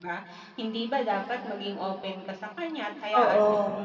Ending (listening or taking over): listening